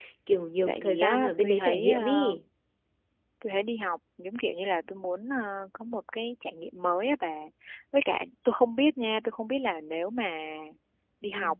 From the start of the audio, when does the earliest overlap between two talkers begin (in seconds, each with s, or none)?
0.7 s